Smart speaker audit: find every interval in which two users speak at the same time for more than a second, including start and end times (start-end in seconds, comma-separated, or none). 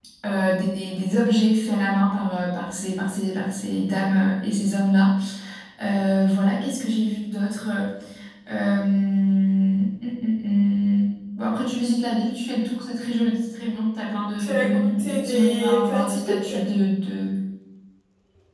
14.4-16.5